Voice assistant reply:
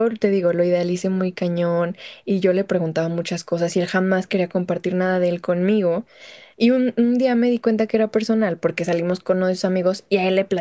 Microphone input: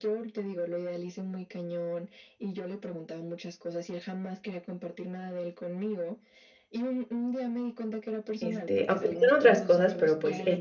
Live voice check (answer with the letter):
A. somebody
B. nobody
A